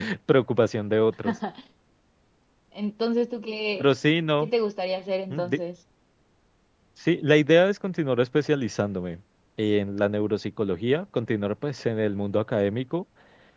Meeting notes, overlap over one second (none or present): none